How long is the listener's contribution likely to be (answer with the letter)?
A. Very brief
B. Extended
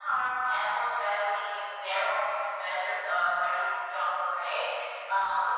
A